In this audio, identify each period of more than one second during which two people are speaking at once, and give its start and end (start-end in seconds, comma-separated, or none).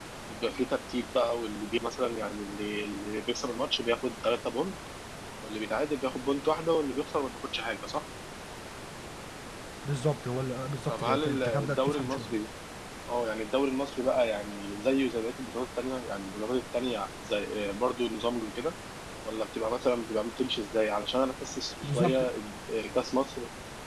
10.9-12.4